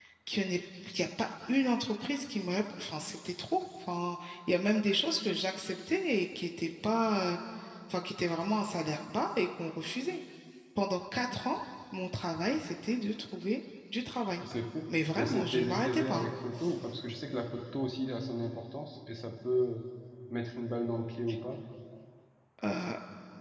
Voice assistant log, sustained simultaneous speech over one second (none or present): present